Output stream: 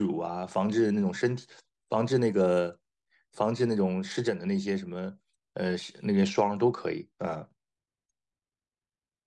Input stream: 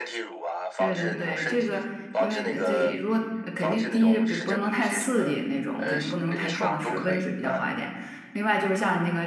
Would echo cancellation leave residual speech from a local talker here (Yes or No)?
Yes